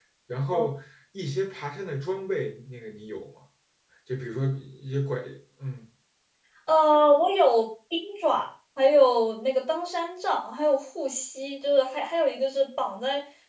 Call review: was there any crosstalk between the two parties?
No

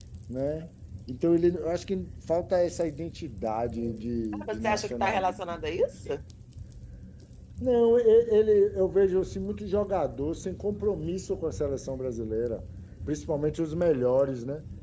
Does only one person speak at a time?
No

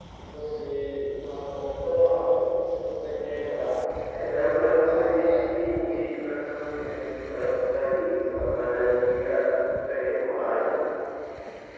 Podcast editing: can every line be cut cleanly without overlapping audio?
No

